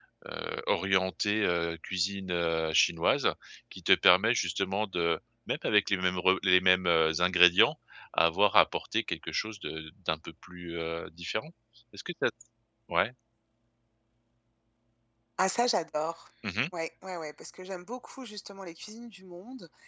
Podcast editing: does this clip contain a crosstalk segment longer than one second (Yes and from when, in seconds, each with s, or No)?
No